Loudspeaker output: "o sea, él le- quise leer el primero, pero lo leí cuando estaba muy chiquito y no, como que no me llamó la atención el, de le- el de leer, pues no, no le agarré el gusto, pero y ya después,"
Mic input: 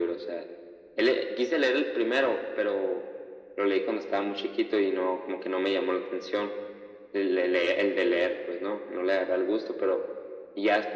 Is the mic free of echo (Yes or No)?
No